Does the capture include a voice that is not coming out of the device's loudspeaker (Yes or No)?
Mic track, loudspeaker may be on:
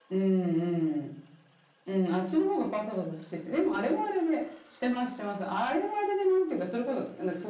No